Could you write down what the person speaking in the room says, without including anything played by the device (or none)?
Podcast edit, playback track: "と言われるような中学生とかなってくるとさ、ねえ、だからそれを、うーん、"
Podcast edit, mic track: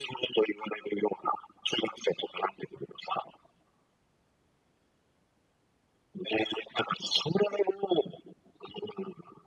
none